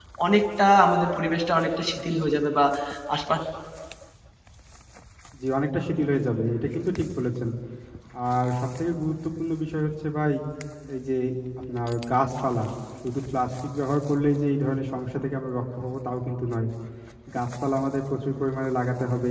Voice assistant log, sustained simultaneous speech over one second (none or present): none